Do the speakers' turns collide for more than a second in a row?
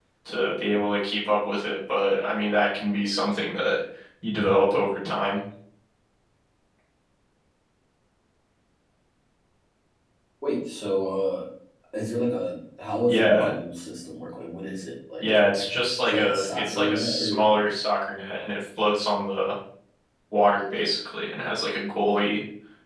Yes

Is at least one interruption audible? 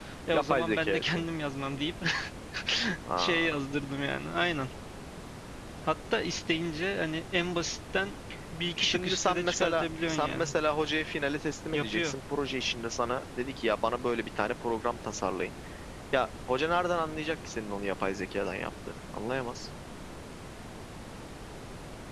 Yes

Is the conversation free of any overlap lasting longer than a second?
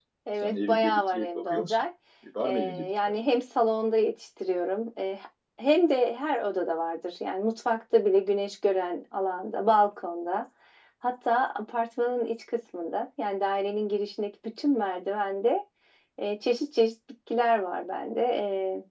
No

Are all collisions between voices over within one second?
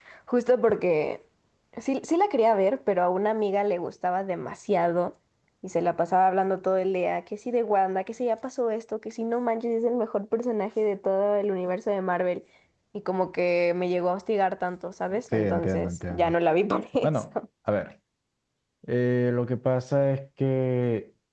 No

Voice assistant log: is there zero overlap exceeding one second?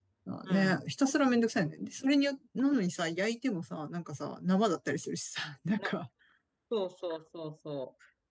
Yes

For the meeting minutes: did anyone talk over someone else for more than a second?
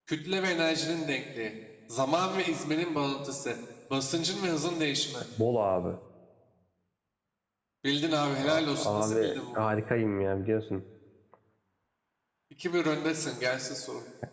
Yes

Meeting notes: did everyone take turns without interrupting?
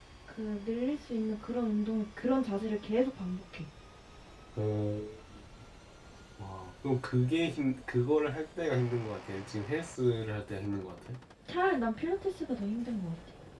Yes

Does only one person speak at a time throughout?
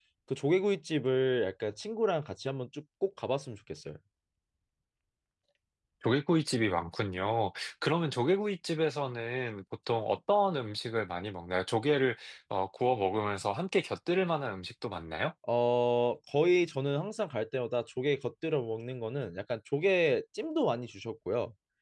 Yes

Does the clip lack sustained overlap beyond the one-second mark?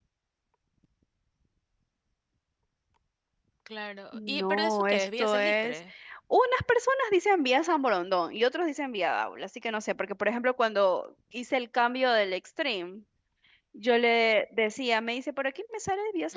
No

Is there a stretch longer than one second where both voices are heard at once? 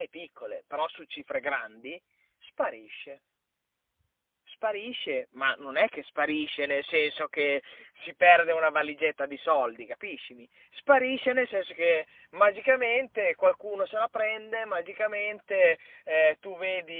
No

